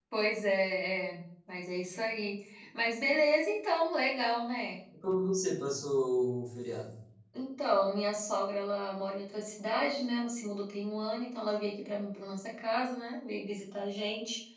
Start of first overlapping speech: none

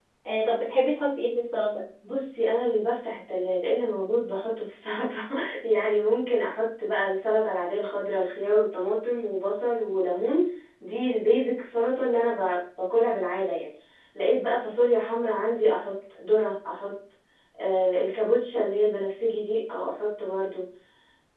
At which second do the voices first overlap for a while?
none

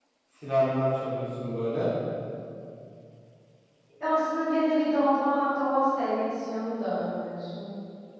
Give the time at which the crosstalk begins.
none

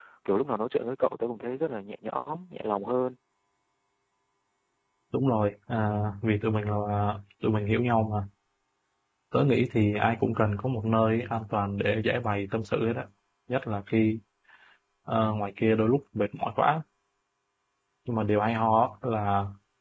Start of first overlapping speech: none

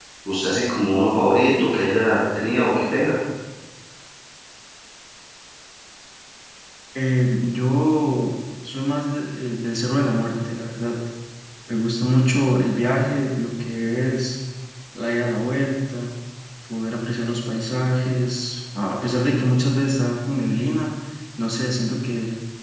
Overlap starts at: none

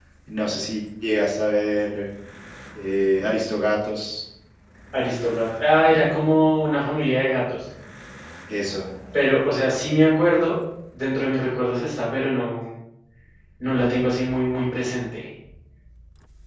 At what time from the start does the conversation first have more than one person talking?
none

